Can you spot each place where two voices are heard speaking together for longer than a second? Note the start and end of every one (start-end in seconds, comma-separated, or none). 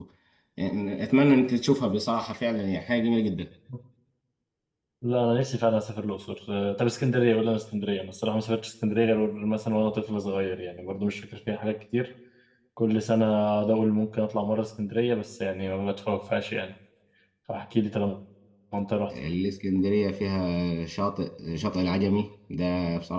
none